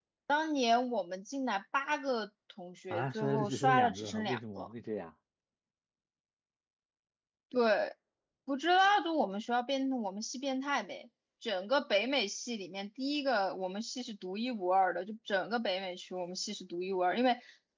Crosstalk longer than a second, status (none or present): present